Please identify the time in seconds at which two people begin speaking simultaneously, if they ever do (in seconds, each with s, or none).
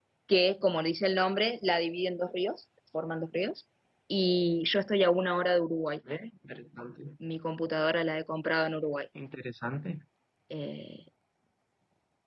none